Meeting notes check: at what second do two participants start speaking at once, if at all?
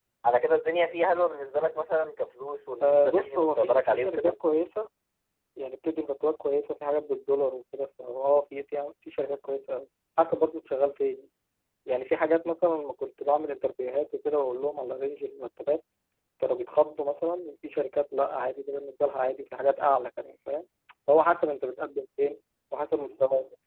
3 s

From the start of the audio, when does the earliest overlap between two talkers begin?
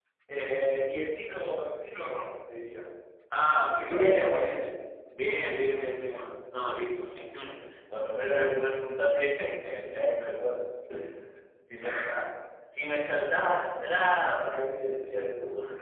3 s

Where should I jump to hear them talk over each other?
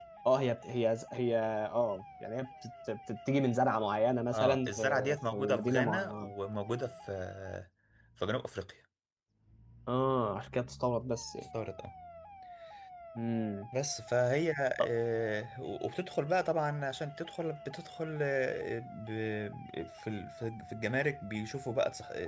4 s

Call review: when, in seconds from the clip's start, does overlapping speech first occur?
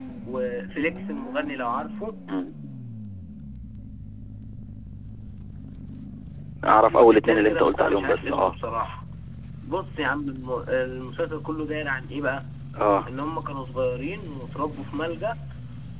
7 s

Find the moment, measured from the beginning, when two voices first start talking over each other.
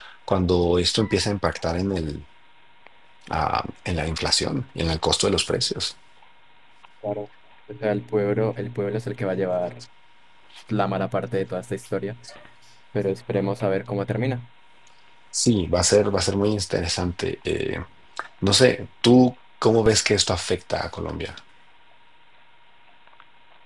none

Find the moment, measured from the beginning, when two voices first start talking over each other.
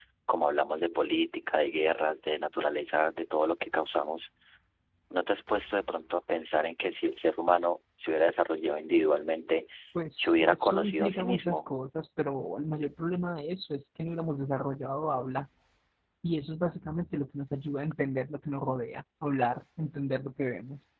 10 s

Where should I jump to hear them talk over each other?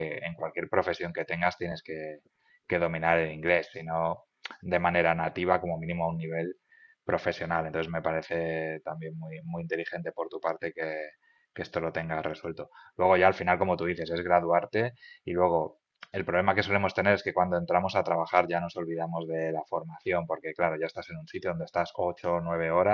none

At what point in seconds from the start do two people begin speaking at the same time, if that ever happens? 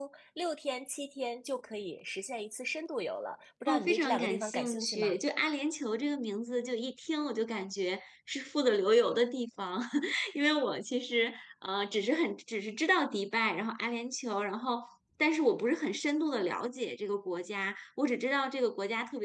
4 s

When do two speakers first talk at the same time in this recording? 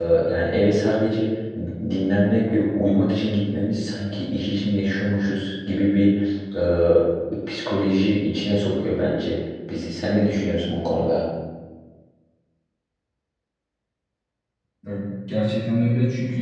none

